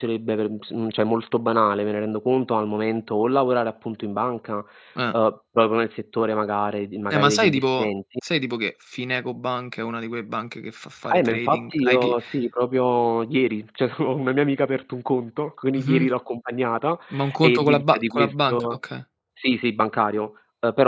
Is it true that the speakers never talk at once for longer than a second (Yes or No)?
No